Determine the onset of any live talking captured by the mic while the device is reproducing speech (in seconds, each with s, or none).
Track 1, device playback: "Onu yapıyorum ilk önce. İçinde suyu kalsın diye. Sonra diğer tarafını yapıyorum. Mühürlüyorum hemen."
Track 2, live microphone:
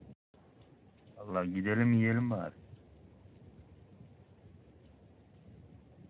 1.1 s